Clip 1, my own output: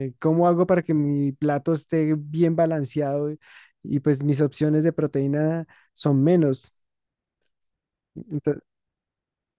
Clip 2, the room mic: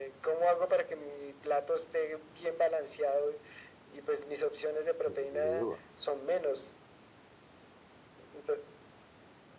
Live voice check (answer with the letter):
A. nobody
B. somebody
B